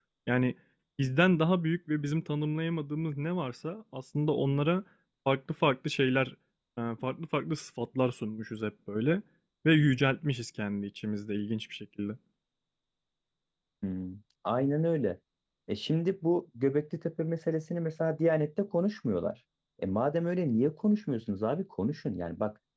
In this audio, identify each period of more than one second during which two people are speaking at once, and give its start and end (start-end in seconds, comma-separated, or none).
none